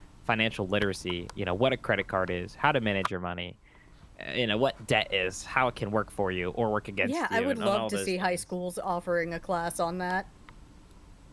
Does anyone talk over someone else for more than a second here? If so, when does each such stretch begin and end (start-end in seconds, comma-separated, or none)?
7.0-8.4